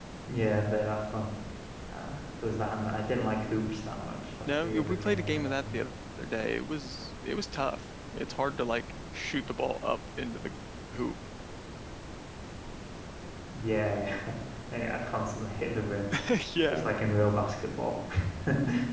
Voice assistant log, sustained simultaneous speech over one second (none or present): present